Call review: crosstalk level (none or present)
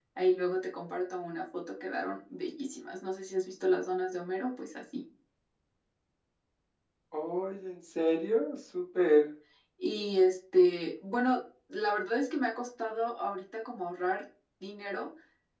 none